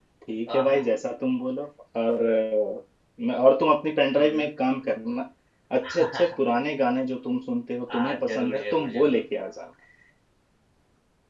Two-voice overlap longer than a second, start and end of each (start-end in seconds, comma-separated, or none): 8.0-9.2